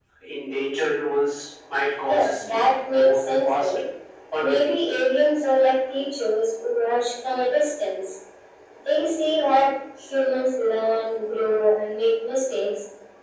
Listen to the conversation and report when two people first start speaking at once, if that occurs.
2.0 s

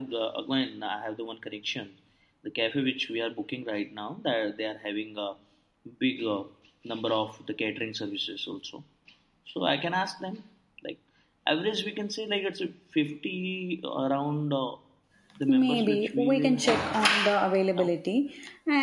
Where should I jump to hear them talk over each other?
15.5 s

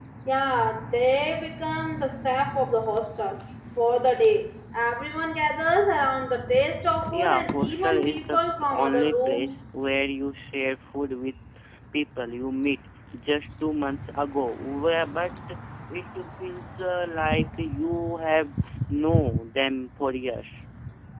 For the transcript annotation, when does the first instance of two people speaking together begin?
7.1 s

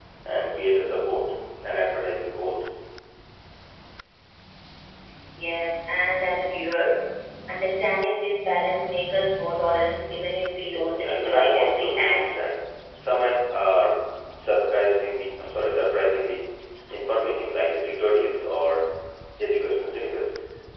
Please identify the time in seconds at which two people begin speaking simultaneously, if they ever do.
10.8 s

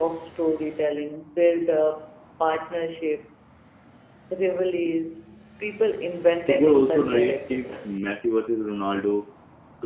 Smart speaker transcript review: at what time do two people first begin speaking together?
6.5 s

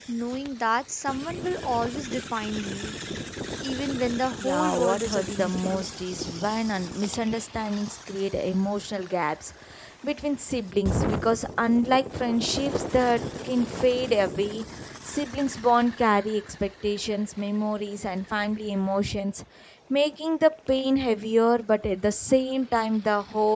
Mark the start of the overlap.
4.4 s

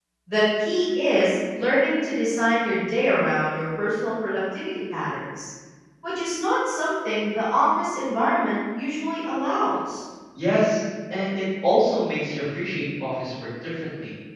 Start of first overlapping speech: none

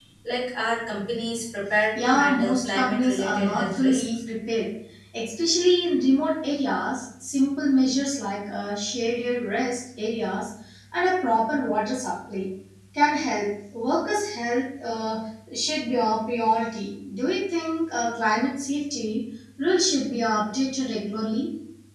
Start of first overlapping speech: 1.9 s

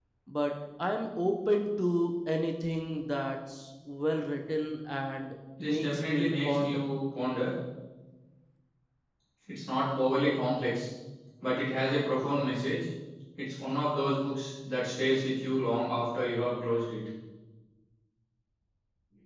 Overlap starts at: 5.6 s

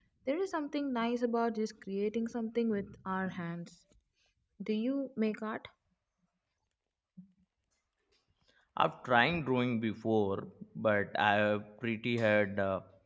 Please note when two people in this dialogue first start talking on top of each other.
none

